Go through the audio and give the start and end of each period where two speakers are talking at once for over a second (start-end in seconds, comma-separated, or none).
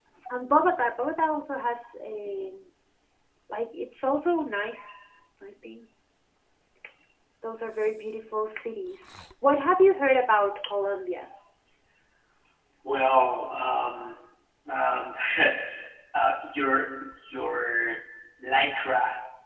none